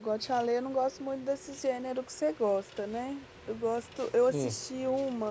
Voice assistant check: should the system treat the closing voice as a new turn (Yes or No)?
No